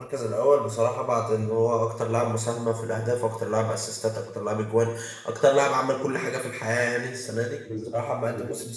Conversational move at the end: listening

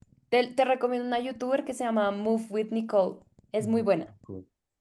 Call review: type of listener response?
taking over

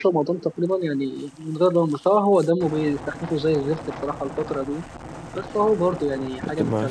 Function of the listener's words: taking over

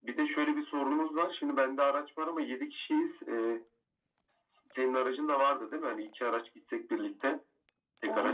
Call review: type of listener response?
taking over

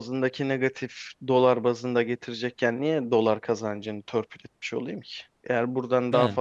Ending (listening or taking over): listening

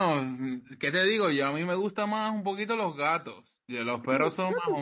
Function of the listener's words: listening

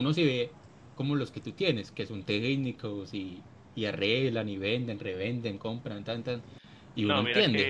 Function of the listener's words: taking over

